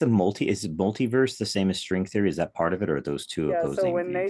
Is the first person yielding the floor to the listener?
Yes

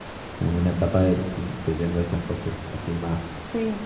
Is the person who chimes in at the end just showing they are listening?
No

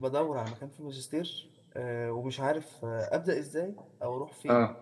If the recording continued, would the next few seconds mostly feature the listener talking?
No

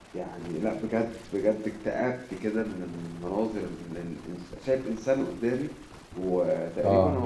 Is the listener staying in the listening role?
Yes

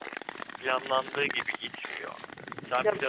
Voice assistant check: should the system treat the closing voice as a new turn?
No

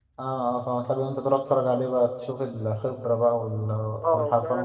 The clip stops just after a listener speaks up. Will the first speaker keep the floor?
No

